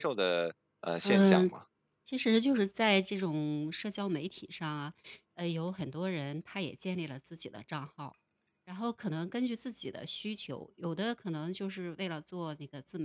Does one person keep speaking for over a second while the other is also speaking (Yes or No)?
No